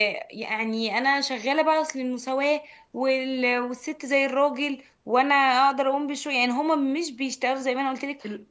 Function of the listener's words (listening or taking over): listening